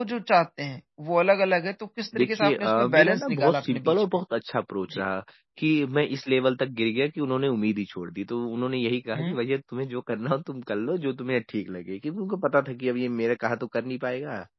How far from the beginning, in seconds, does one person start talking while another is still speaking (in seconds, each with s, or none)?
2.1 s